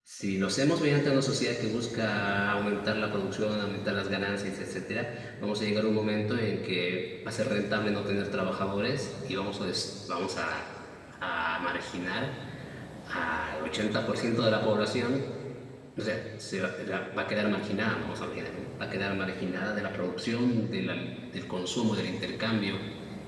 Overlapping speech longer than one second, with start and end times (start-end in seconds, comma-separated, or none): none